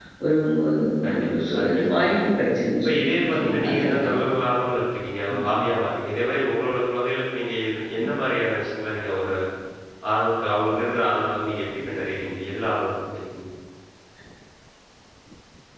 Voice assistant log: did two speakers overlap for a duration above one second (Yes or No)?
Yes